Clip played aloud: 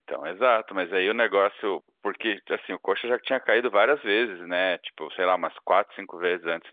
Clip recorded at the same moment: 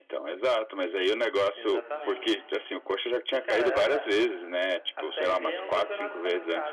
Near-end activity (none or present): present